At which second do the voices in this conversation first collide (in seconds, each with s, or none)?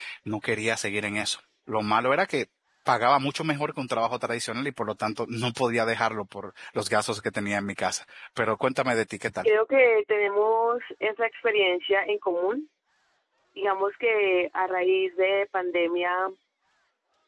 none